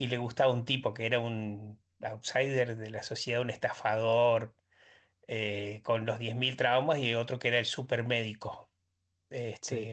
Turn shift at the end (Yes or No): No